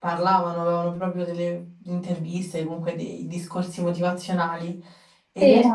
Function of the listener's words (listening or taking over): listening